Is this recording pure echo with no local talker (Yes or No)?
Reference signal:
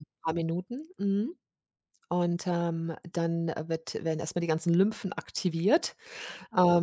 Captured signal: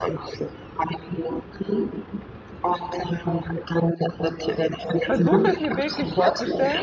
No